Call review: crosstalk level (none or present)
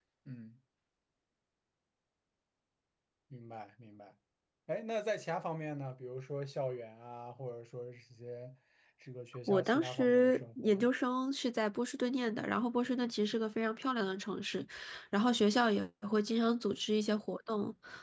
present